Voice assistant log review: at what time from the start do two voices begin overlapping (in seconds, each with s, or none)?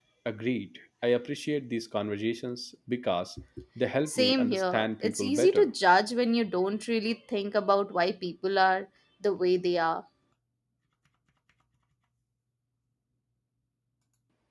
4.1 s